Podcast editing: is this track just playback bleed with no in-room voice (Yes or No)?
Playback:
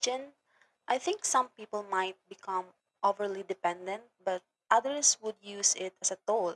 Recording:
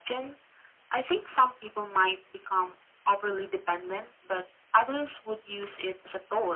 Yes